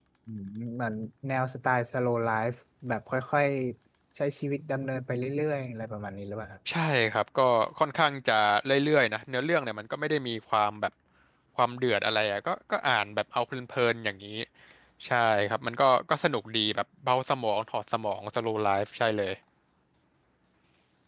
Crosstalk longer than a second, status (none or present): none